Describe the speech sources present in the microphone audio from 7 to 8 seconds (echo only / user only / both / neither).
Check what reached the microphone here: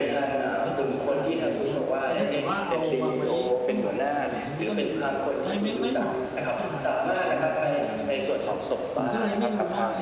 both